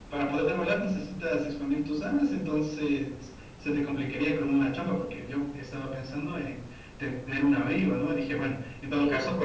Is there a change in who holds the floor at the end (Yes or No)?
No